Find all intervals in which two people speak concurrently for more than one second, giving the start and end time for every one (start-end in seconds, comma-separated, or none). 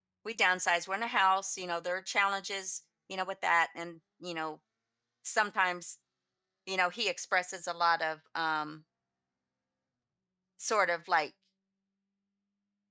none